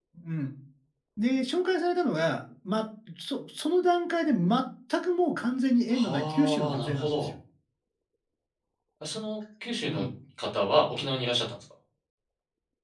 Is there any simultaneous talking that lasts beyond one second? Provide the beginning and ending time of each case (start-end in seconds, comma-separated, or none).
5.9-7.3